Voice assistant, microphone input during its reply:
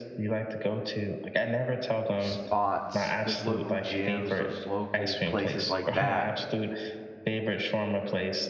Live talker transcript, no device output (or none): spots, those local gyms, those local places like that,